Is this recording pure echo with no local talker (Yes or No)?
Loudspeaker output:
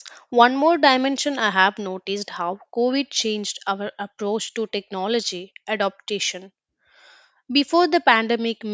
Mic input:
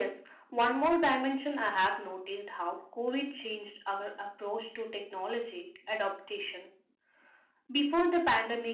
Yes